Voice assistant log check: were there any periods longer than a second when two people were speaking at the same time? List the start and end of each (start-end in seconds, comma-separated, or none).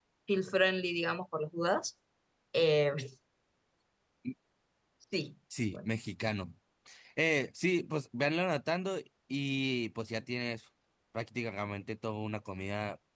none